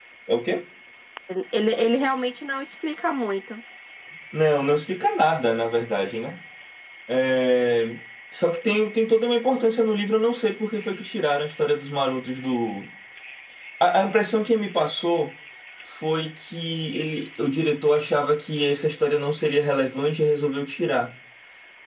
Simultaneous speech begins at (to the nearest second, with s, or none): none